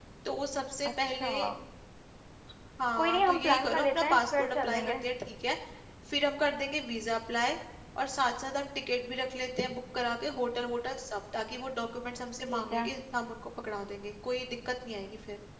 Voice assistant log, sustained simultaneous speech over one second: present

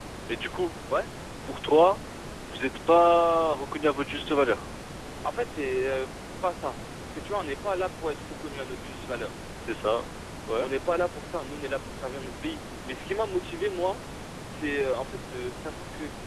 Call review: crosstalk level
none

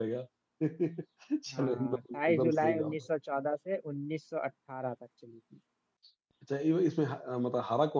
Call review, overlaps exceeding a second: present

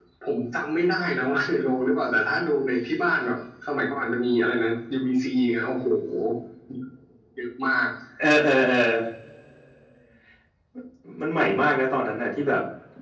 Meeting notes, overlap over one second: none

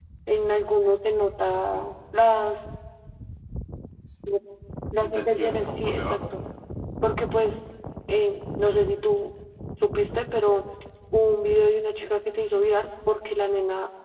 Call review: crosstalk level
present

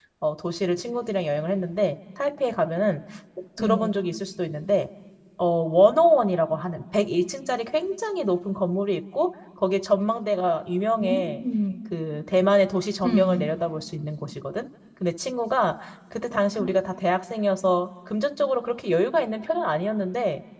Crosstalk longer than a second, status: none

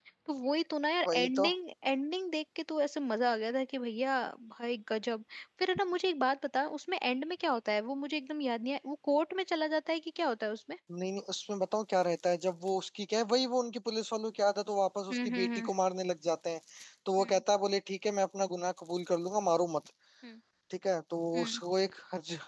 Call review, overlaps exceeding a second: none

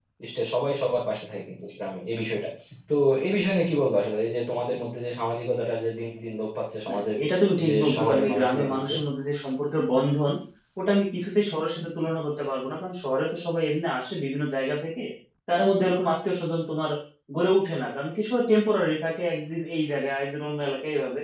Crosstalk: present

